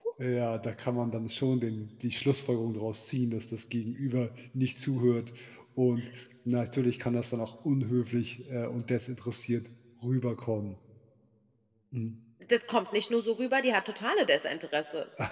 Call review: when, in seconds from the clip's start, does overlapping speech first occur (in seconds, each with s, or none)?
none